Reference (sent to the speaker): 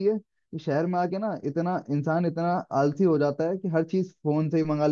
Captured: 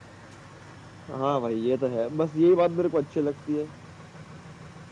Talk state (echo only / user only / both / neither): user only